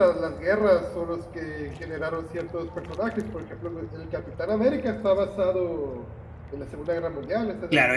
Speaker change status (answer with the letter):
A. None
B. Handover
B